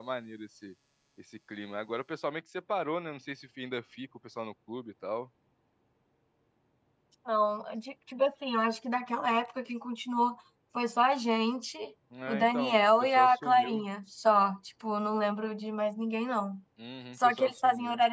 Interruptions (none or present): present